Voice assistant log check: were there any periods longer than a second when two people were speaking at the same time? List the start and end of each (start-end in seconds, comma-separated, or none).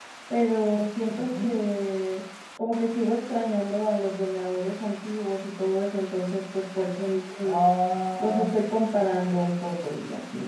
none